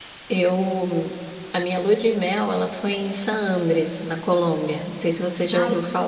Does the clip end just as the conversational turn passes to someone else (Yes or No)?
Yes